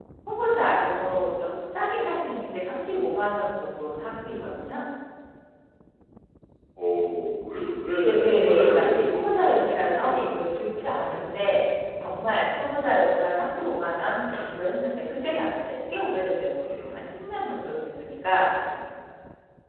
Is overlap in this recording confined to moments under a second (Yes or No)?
No